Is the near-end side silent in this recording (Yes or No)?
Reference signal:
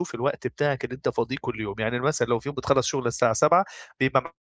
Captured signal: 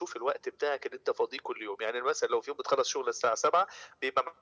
Yes